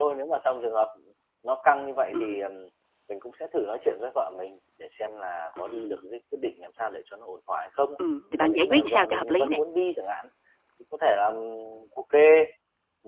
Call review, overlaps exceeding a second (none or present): present